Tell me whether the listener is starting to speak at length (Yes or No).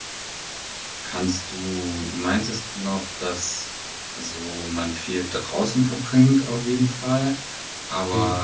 No